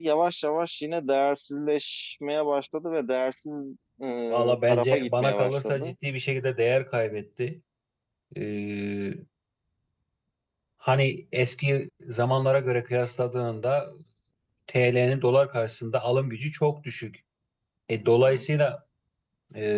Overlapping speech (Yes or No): Yes